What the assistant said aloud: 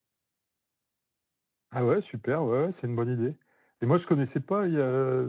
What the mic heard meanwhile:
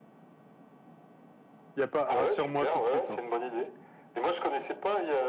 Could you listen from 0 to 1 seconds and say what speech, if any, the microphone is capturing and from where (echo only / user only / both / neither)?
neither